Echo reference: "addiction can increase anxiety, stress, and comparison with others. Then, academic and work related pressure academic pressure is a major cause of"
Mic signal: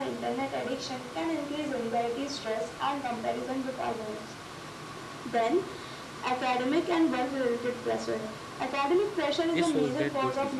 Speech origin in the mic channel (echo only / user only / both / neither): both